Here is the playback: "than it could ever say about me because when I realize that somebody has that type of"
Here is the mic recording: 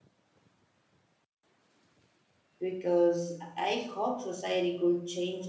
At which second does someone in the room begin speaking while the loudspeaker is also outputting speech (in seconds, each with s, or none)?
2.6 s